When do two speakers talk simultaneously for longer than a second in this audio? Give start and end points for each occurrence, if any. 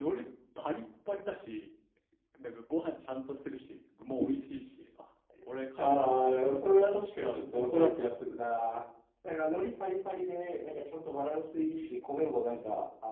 5.8-8.3

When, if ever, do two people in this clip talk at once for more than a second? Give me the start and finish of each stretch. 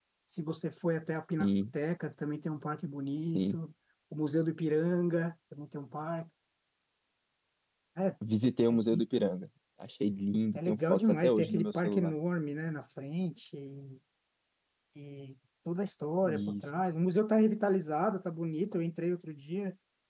10.6-12.1

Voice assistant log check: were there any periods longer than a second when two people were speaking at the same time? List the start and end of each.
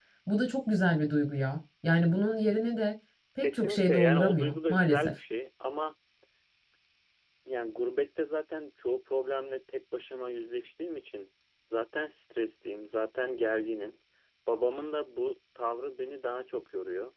3.4-5.1

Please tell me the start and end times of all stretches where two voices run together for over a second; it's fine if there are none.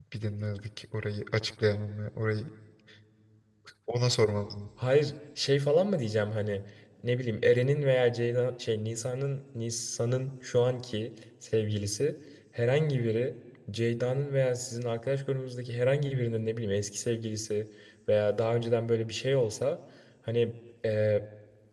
none

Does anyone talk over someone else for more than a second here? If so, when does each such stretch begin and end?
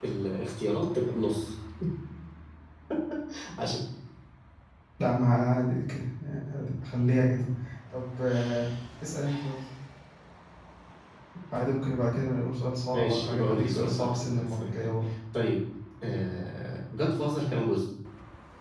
12.9-14.9

